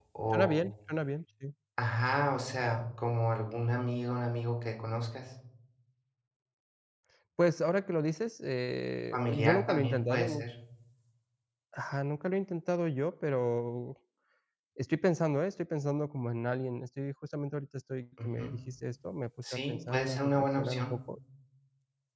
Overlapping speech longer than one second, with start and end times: 9.1-10.4, 19.5-21.0

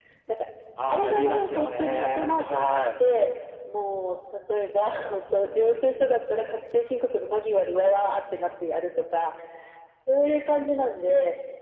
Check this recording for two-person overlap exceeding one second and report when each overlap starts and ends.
0.9-2.8

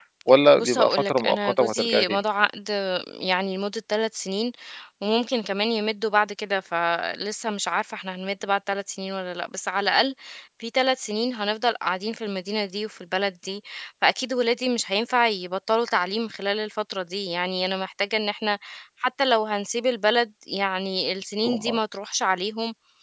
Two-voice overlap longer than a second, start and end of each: 0.6-2.2

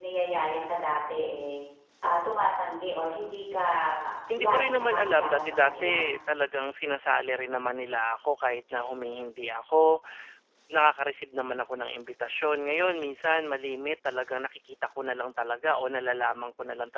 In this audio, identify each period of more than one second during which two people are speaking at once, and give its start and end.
4.4-6.0

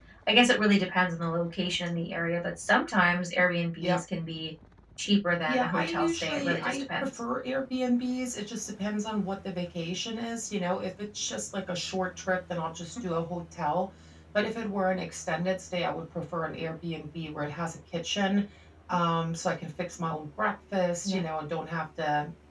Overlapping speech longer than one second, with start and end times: 5.5-7.2

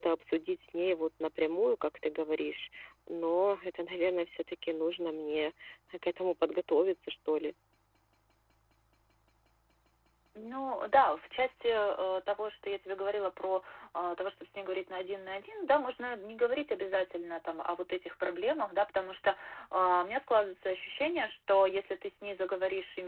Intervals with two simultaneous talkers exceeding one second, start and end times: none

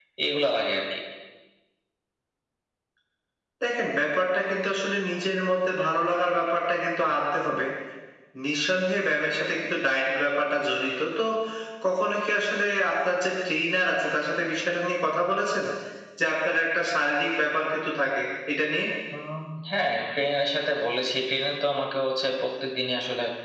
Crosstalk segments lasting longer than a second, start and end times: none

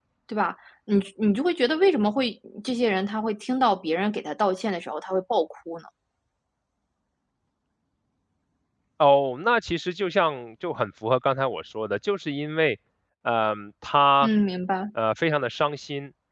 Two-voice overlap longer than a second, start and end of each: none

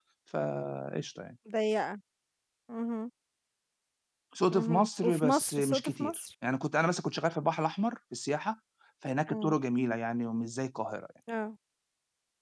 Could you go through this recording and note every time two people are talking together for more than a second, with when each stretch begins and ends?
4.5-6.2

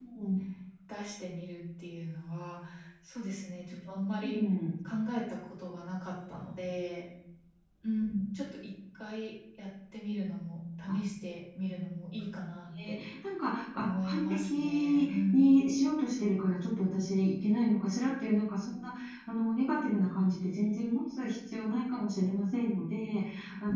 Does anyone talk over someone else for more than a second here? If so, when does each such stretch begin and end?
13.8-15.6

